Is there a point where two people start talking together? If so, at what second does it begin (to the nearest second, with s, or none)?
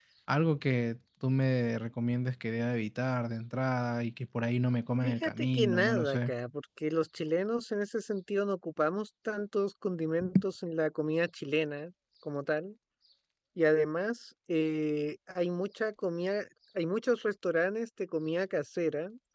5 s